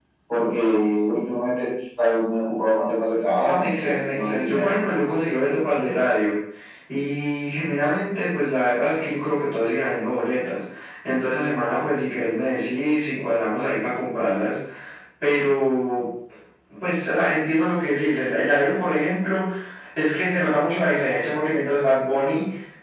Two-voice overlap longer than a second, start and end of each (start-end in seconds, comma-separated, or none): 3.3-4.8